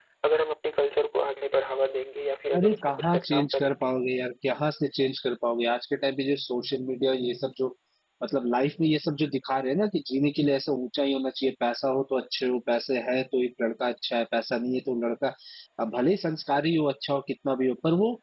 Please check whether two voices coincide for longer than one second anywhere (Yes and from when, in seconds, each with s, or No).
Yes, from 2.5 s